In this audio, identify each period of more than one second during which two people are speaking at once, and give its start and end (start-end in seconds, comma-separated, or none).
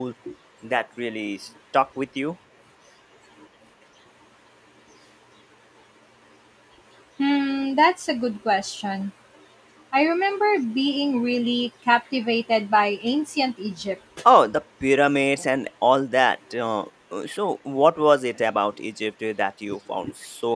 none